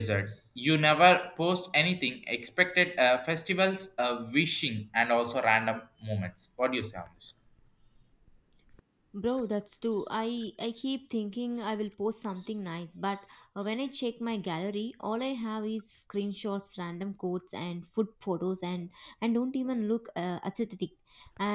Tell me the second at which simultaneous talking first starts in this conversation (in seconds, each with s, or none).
none